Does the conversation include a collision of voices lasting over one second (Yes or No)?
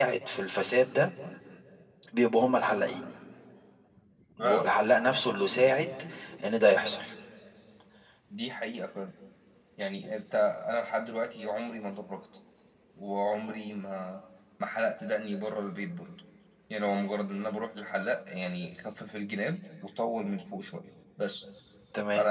No